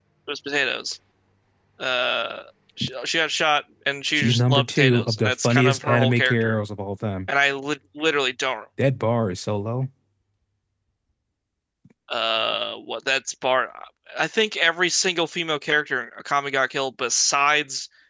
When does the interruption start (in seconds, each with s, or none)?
4.1 s